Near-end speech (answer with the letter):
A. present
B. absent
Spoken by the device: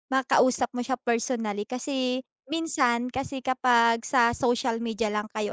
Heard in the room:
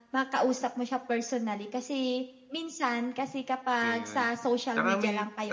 A